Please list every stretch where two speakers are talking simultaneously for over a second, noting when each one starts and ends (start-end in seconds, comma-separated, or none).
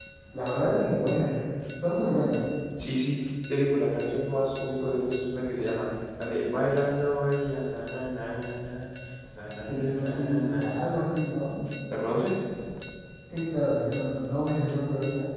9.7-11.1